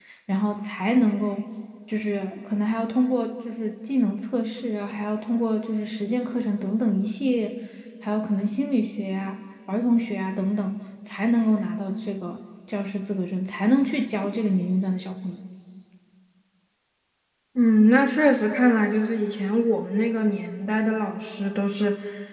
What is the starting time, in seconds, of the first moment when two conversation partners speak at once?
none

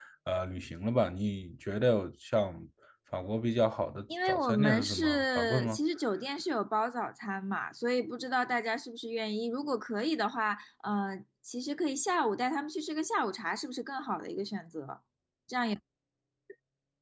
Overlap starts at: 4.1 s

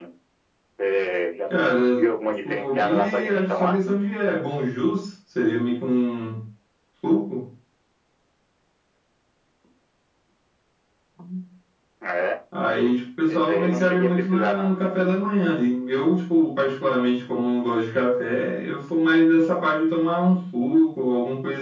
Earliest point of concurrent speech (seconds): 2.5 s

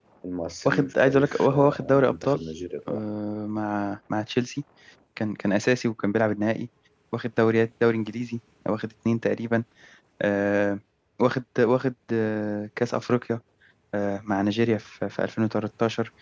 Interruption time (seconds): 0.7 s

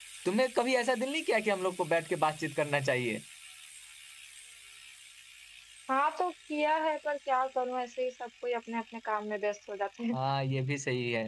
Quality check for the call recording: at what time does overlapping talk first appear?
none

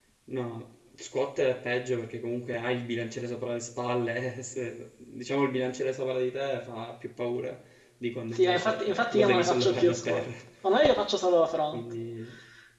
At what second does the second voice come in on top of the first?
8.3 s

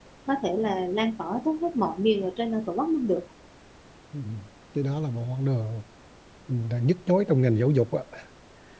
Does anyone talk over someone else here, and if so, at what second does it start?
none

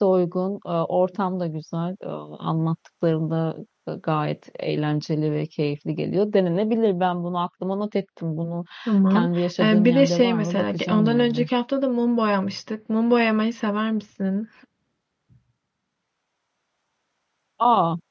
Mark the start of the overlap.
9.1 s

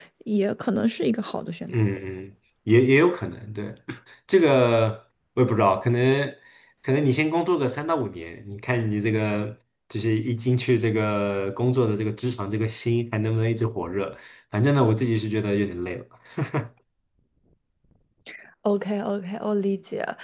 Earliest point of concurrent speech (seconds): none

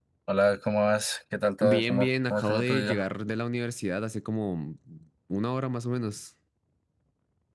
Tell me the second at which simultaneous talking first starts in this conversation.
1.6 s

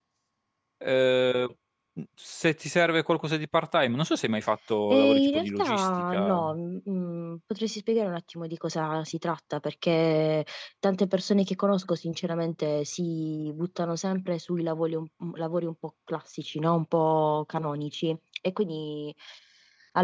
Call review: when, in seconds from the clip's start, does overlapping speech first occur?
4.9 s

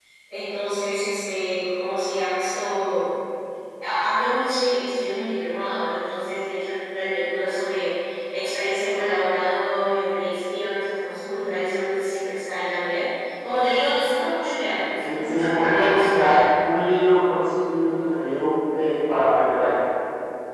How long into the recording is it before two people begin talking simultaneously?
15.0 s

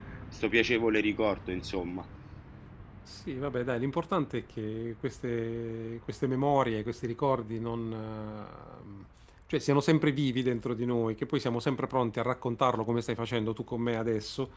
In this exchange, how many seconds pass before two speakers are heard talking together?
none

